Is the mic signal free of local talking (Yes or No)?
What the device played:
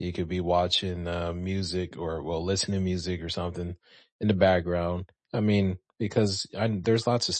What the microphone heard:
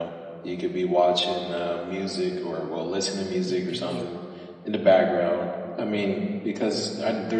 No